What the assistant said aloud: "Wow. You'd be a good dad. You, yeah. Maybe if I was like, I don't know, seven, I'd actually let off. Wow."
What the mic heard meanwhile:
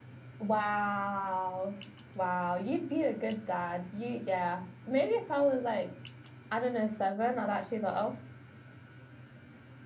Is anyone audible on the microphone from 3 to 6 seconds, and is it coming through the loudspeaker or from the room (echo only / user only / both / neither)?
echo only